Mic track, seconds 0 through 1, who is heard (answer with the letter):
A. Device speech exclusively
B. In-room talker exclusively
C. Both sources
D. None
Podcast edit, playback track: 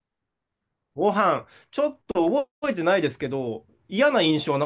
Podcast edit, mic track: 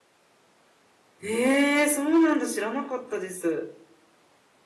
D